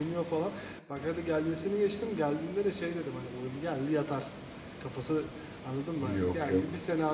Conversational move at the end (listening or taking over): listening